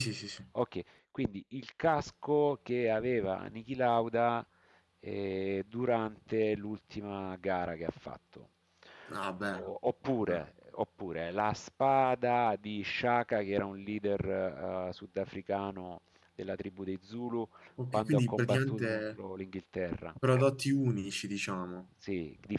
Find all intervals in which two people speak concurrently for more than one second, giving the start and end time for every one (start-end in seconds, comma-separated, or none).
17.9-19.2